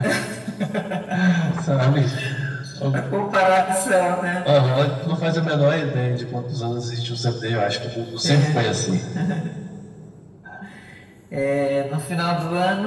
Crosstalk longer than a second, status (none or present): none